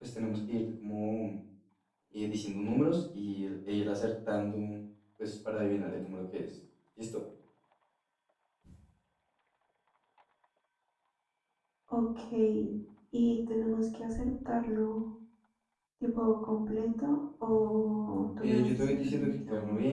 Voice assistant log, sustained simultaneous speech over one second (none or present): present